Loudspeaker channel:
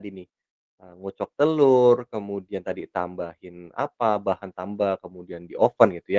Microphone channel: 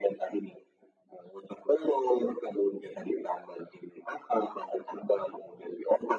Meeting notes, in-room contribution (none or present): none